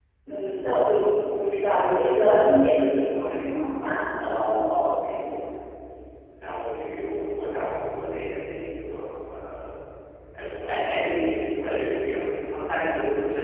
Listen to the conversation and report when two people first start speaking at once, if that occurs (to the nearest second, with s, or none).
none